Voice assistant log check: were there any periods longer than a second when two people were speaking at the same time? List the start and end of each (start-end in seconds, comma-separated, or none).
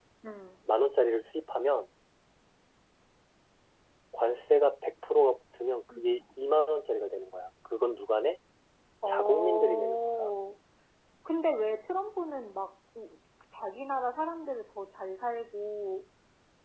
9.1-10.3